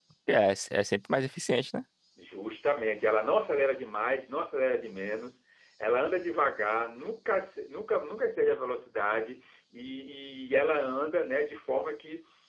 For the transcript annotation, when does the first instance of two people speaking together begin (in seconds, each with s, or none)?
none